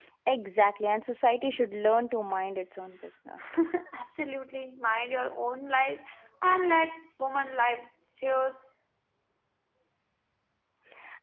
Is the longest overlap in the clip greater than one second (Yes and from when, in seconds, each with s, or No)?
No